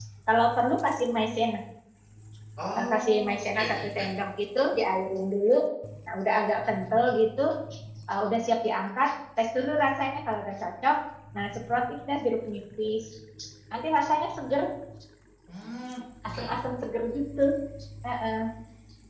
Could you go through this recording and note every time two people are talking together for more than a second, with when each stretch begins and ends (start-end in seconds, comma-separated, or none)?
2.8-4.0